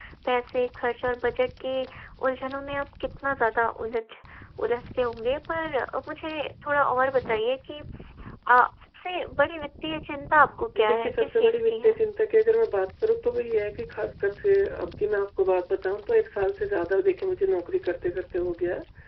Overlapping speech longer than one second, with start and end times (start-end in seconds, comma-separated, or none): 10.8-12.0